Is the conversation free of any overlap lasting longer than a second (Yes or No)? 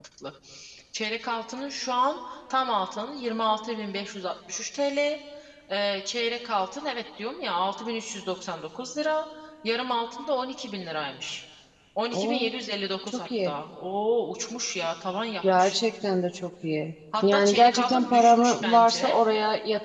No